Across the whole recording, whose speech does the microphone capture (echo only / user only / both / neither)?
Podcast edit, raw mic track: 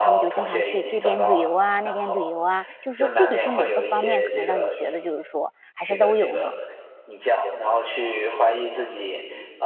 both